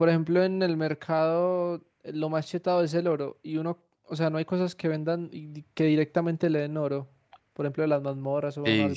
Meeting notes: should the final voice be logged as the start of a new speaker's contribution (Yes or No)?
Yes